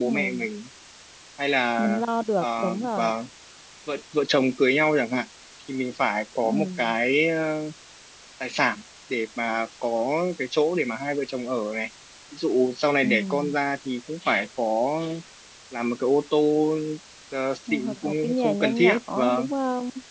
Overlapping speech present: Yes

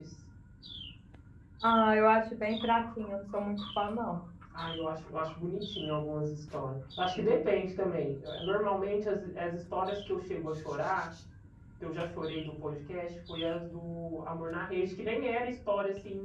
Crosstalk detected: No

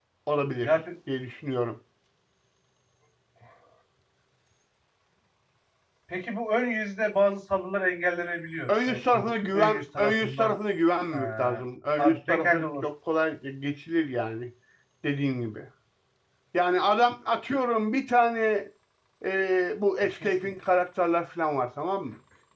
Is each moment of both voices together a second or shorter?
No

